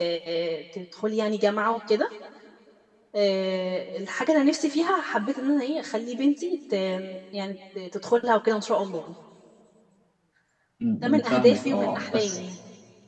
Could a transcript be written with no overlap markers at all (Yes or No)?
No